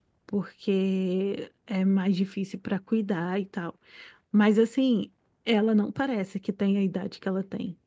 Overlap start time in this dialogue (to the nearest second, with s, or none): none